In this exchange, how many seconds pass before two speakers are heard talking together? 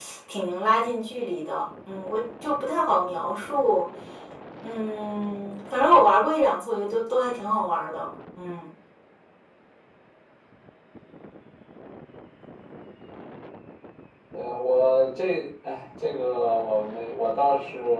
none

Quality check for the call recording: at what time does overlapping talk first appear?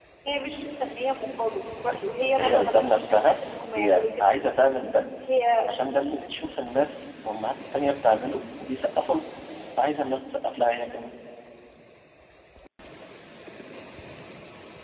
1.8 s

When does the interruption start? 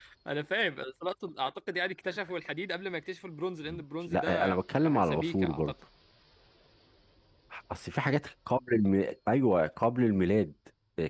3.7 s

